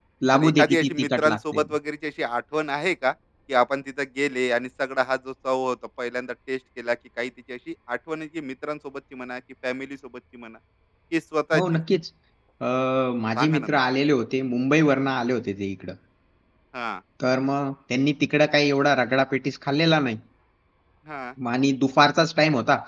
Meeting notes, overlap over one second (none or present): present